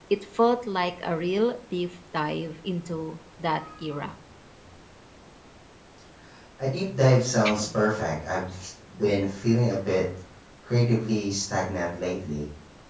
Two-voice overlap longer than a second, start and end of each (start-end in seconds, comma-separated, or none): none